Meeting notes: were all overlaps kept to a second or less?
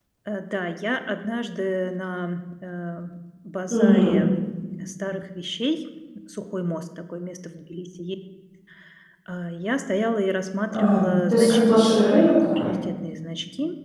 No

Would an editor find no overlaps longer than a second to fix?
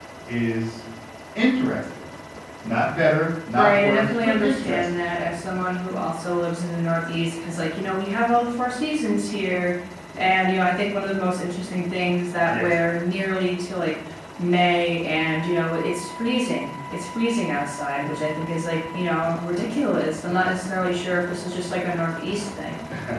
No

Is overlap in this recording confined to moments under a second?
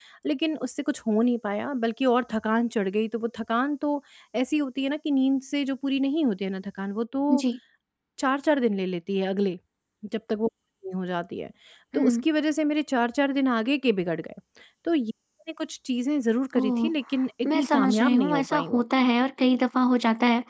No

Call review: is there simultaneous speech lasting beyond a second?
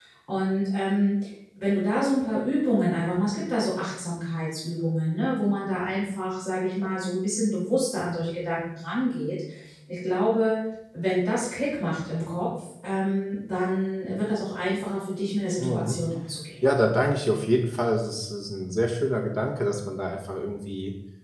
No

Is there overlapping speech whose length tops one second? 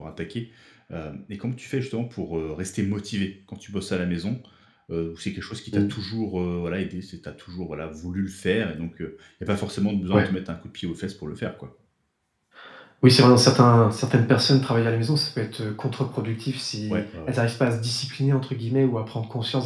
No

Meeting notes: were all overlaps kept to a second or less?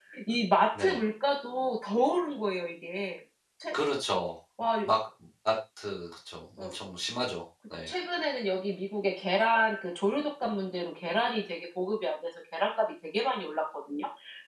Yes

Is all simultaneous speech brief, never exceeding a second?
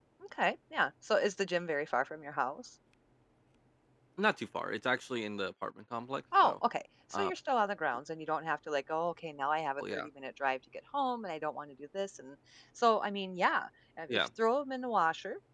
Yes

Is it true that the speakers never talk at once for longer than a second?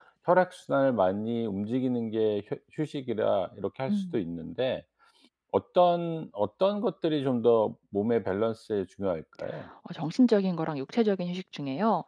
Yes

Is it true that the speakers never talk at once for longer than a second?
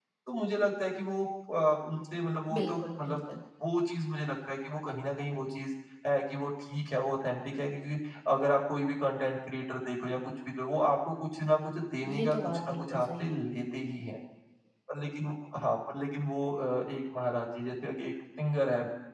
No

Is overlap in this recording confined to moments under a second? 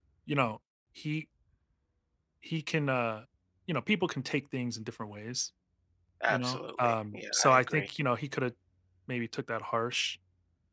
No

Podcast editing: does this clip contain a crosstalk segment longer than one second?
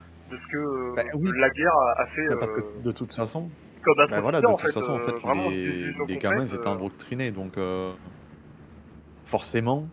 Yes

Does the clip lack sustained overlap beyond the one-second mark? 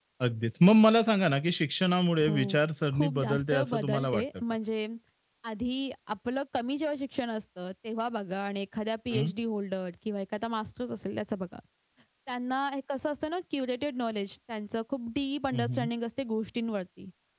No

